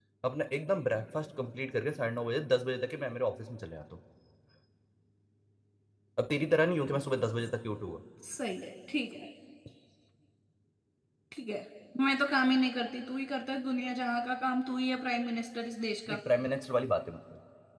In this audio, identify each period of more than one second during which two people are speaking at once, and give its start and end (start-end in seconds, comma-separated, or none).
none